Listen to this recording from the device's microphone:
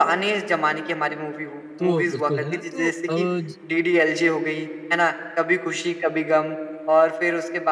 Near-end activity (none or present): present